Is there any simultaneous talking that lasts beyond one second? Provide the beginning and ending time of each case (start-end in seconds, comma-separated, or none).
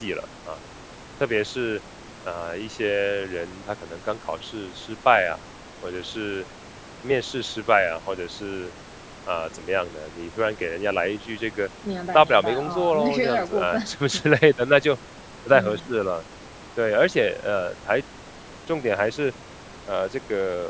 12.1-13.8